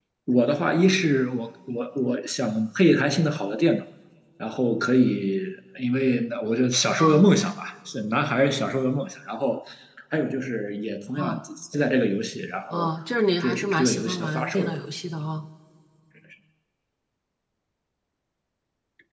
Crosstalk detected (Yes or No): Yes